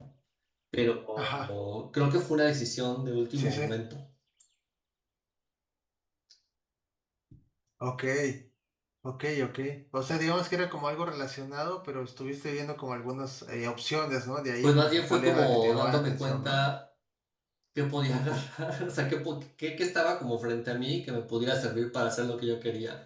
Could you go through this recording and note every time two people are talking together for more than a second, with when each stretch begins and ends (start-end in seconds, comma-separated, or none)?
14.6-16.6